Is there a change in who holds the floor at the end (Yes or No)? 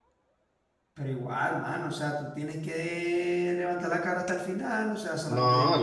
Yes